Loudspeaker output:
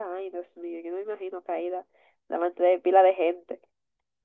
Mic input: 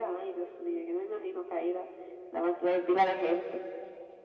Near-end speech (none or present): none